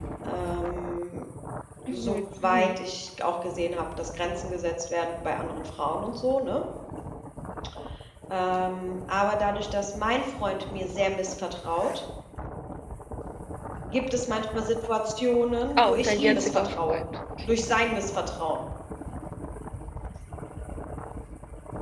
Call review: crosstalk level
present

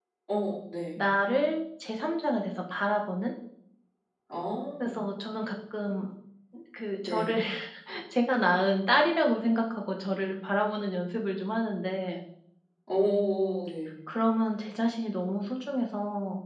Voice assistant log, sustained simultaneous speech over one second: none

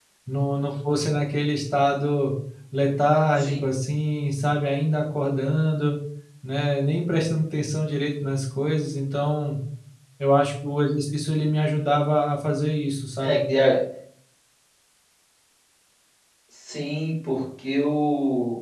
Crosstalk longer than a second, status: none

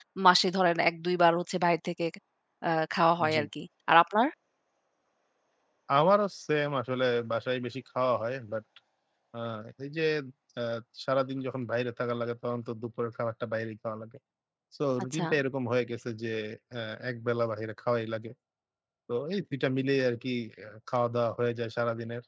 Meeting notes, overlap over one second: none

